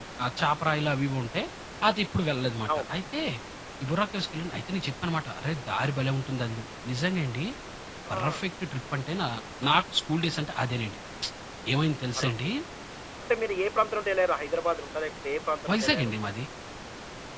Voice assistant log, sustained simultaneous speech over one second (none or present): none